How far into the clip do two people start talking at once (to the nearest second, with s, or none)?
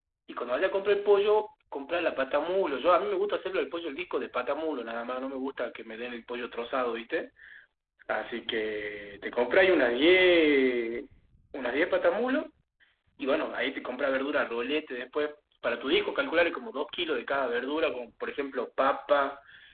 none